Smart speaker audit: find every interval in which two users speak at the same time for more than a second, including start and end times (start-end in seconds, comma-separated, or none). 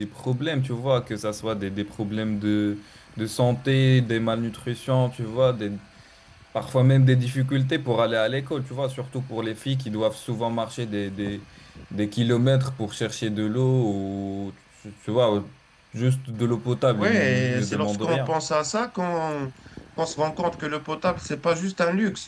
17.0-18.4